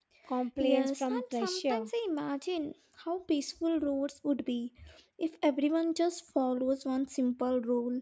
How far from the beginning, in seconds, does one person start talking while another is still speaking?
1 s

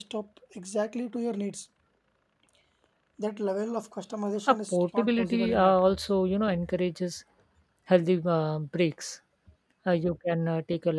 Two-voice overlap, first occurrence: 4 s

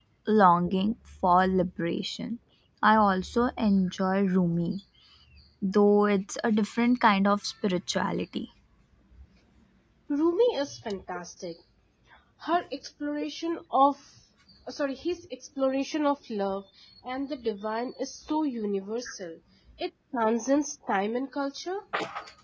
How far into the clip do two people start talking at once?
none

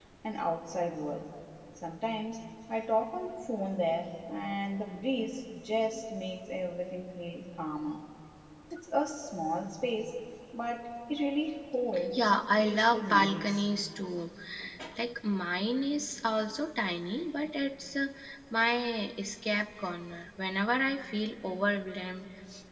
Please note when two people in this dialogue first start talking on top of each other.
12 s

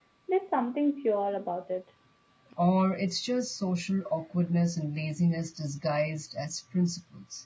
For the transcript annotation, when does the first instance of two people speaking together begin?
none

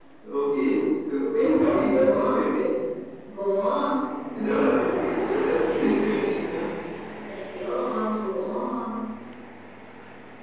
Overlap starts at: 1 s

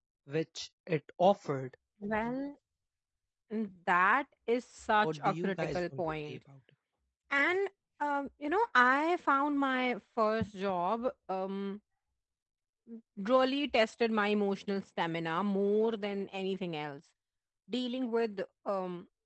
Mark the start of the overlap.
5 s

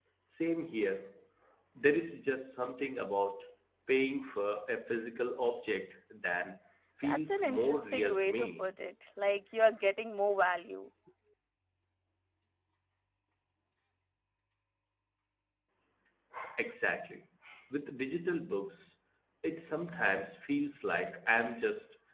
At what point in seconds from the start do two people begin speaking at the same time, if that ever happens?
7 s

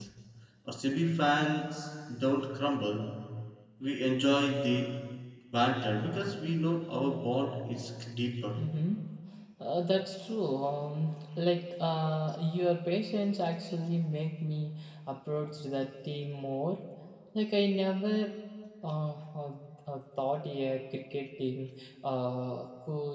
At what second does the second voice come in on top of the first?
none

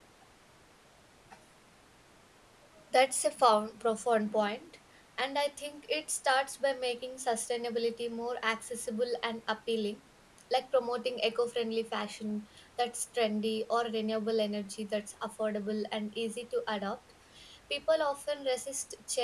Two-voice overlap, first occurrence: none

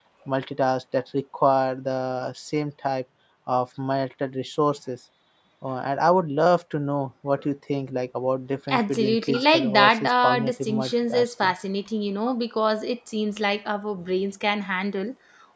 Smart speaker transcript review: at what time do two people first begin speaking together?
9 s

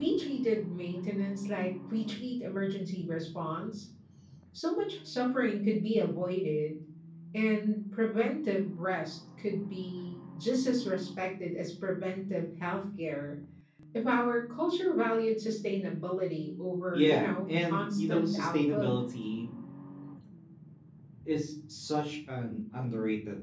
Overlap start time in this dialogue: 17 s

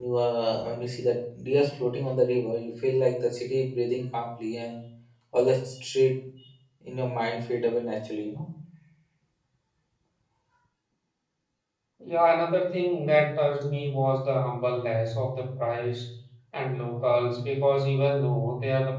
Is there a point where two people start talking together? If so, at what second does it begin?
none

